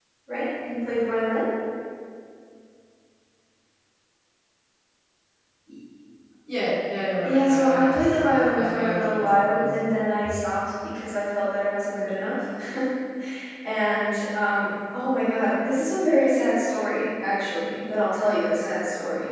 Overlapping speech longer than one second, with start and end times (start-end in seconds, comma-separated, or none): 7.2-9.8